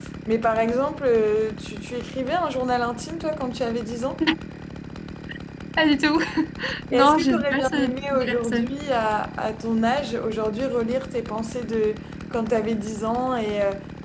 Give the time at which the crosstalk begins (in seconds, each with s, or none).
6.9 s